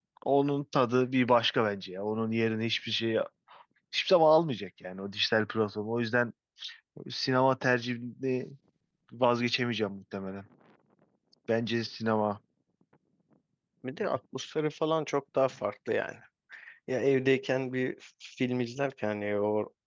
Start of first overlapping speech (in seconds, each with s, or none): none